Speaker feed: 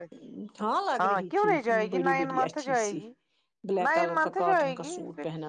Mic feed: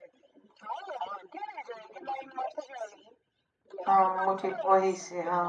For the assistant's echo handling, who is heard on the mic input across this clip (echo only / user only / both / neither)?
both